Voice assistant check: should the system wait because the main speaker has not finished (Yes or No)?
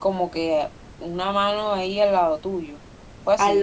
No